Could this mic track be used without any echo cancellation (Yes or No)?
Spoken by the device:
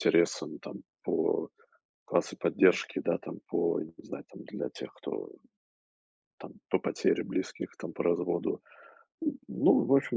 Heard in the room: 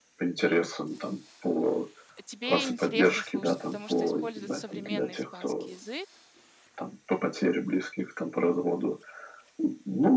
No